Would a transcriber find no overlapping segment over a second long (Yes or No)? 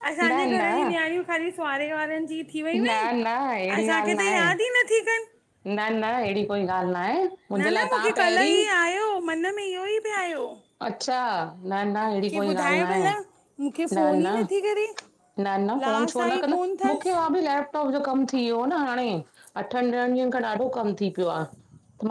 No